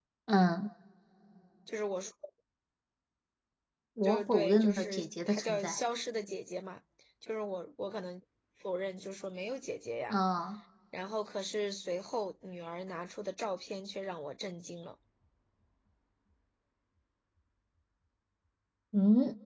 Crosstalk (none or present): present